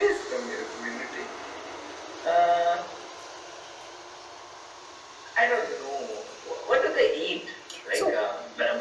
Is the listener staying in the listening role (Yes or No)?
Yes